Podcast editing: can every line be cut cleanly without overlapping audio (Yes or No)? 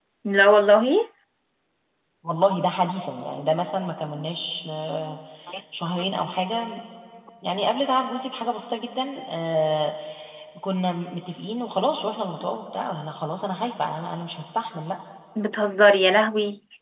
Yes